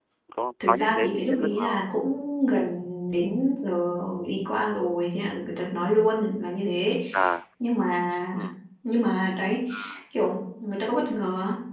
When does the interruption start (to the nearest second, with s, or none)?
1 s